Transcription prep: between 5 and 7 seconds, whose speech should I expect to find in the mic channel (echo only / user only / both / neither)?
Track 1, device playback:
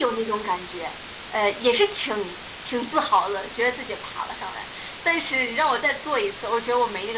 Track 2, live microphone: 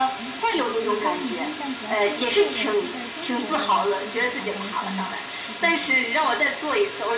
both